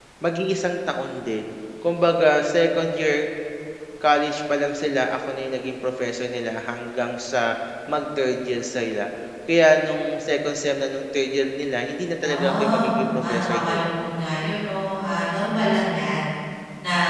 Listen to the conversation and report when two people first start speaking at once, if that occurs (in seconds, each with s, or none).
12.2 s